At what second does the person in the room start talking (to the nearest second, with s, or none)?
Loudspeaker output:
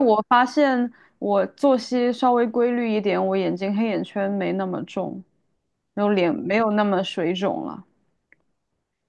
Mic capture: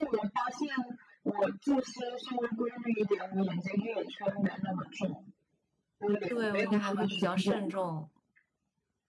6 s